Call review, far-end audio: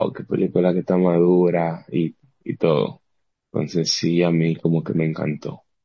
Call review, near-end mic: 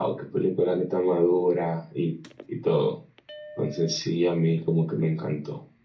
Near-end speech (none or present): none